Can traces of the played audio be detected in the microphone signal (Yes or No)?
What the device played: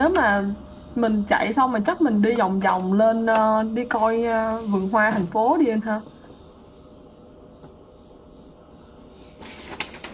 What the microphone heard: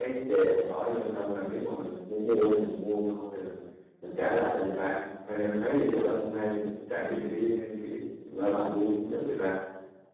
No